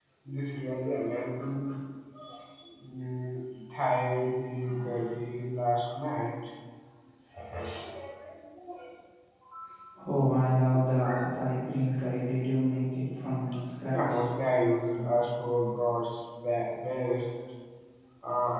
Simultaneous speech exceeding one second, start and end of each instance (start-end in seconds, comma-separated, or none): none